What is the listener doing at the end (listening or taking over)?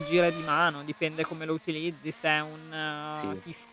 listening